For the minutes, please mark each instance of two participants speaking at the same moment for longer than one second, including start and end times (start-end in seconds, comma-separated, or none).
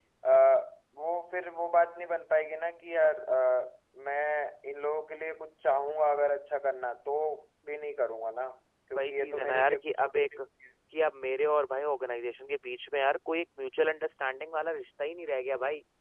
8.9-10.2